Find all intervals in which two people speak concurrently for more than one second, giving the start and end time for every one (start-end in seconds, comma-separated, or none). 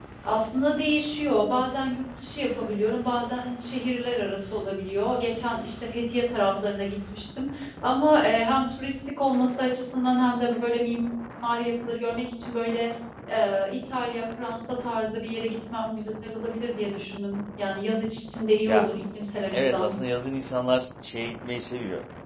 none